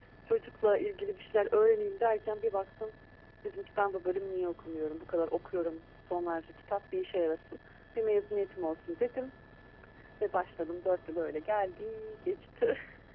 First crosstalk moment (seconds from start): none

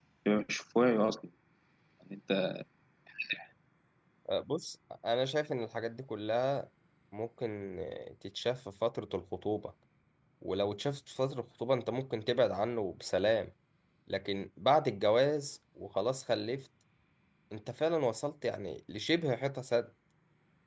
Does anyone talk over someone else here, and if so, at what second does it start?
none

